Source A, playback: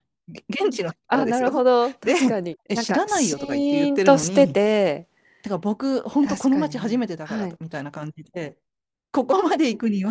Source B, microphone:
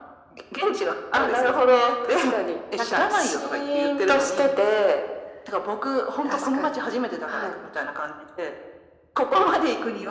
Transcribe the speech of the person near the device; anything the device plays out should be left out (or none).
none